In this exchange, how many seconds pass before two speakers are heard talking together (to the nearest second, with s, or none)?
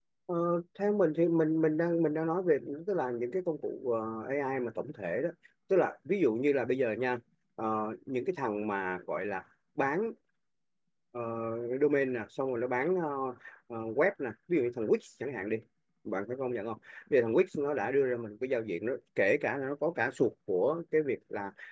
none